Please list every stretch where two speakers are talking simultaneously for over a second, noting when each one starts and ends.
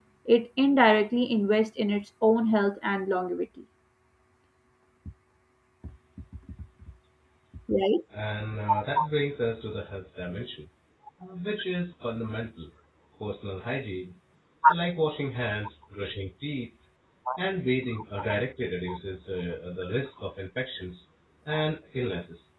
none

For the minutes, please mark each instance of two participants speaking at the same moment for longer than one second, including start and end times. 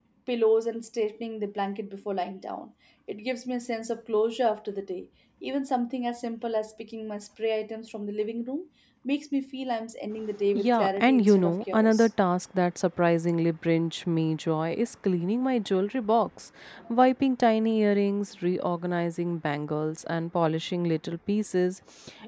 10.5-12.1

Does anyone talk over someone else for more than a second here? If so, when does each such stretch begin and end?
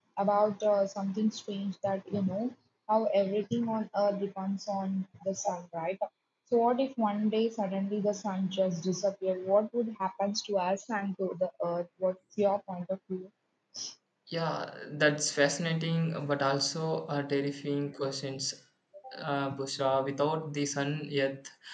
none

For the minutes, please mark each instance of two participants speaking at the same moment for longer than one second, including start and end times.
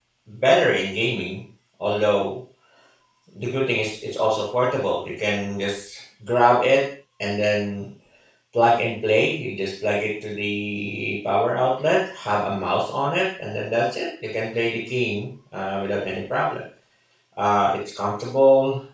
none

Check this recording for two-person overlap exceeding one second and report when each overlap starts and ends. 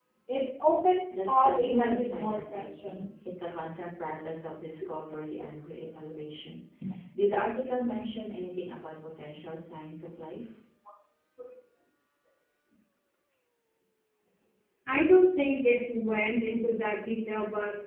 1.1-3.1

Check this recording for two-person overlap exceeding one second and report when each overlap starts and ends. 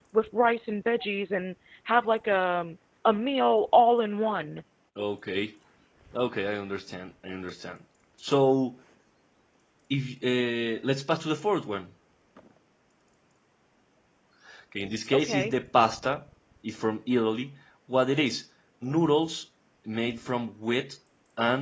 none

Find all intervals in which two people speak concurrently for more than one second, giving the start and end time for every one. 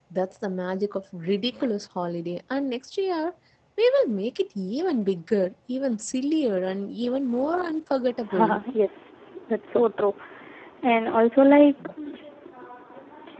none

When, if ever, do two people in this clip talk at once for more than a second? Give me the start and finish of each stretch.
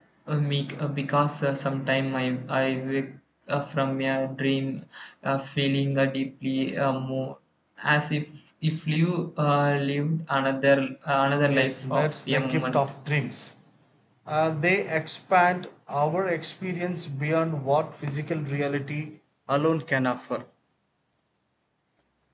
11.5-12.8

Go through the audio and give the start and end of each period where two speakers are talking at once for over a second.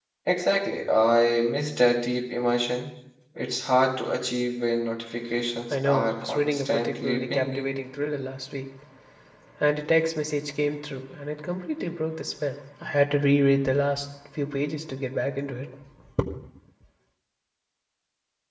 5.7-7.8

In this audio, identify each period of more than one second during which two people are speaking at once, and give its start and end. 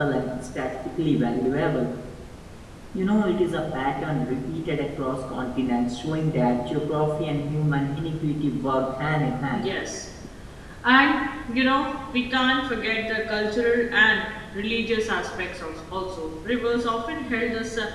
none

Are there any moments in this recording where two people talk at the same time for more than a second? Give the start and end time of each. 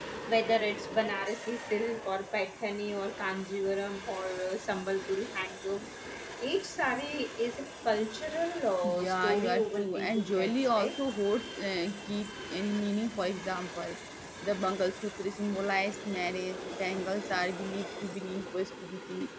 8.8-11.0

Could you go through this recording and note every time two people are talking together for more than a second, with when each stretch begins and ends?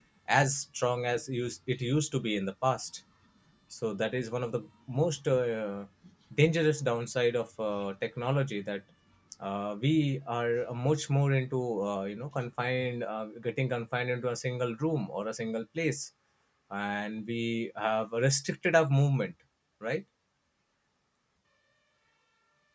none

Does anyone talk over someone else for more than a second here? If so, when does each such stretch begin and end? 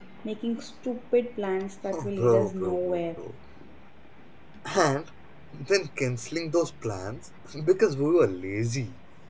1.9-3.2

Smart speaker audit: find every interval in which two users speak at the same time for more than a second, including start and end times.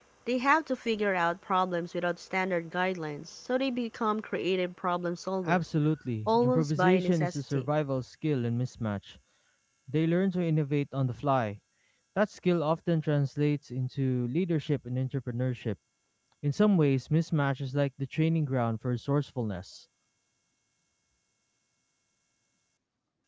6.3-7.6

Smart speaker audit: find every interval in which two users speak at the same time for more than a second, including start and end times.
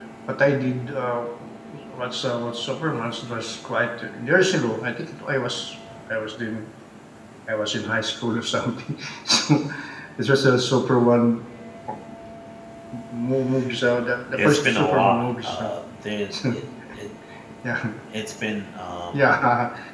14.3-15.7

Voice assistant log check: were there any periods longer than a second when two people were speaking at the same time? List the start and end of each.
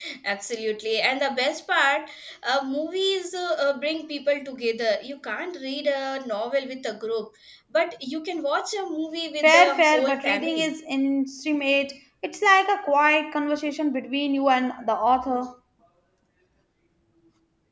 9.4-10.7

